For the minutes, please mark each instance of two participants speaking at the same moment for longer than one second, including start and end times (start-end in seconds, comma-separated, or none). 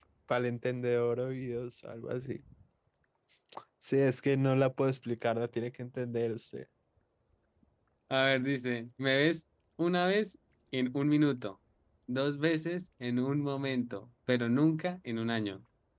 none